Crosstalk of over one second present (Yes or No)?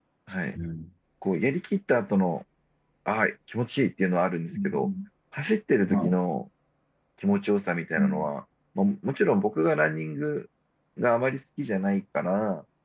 No